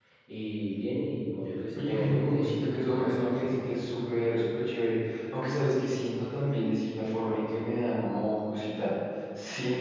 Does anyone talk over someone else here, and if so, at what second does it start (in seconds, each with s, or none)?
1.8 s